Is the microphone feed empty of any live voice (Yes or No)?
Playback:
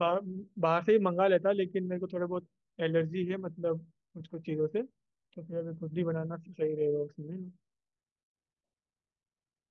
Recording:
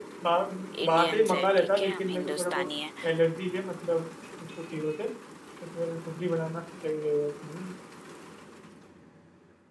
No